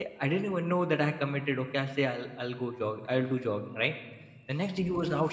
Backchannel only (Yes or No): Yes